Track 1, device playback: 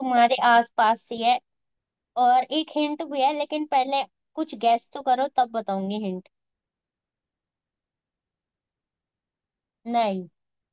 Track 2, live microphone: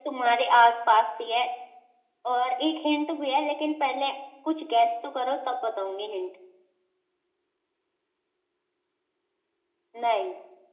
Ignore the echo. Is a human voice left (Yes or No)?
No